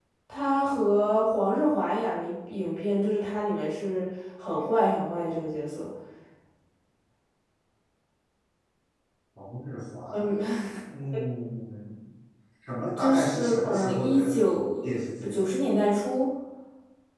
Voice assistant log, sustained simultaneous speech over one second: present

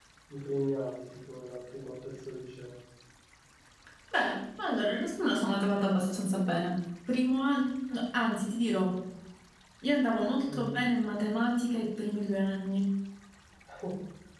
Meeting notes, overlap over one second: none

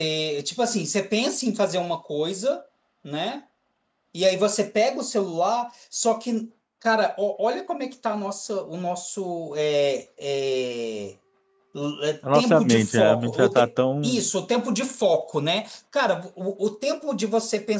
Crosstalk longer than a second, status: present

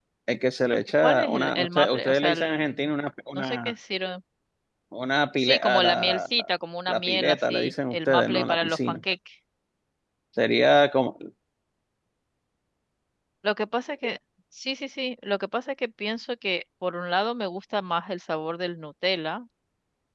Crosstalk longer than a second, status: present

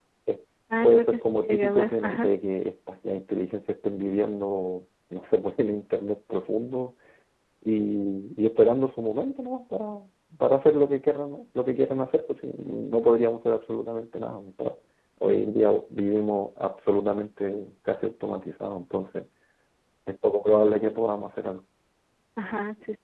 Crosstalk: present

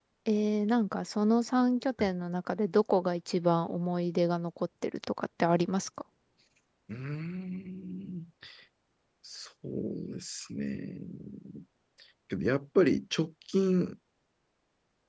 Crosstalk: none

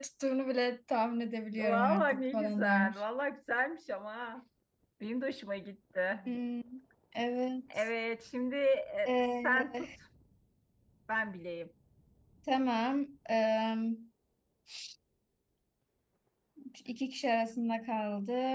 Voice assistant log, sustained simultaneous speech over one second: present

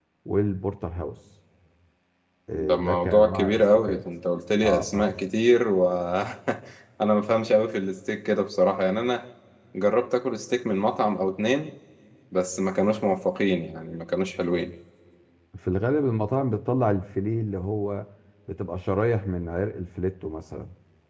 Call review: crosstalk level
present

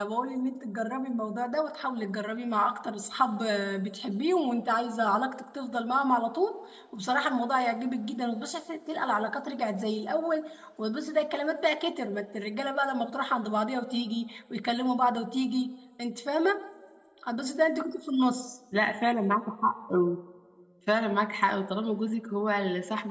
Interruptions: none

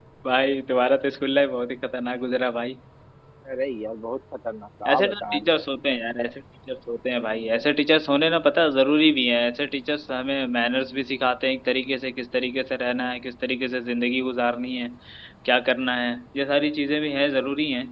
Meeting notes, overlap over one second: none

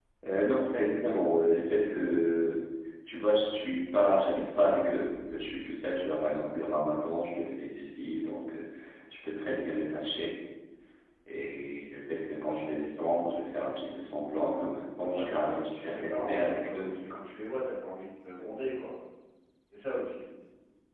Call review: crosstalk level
present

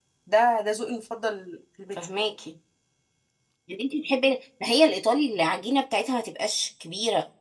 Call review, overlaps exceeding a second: none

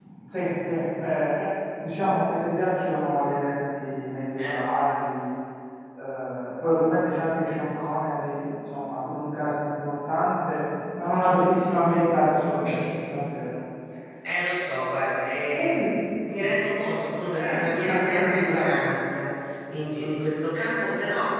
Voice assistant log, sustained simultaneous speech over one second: present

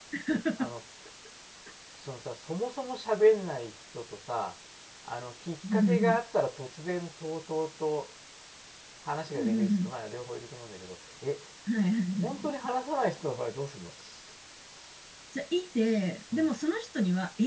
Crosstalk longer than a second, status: none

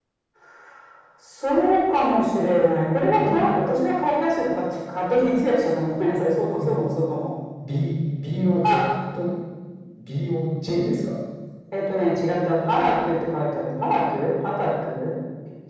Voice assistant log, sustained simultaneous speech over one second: none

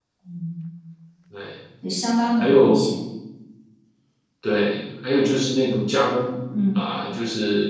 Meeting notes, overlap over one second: none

